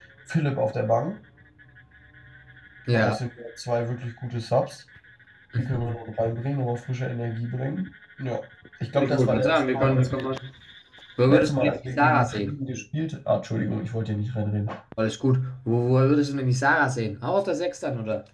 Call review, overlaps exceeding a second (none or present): present